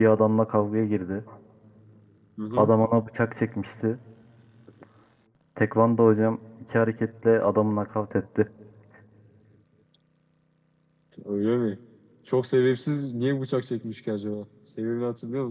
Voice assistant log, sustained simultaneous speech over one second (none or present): none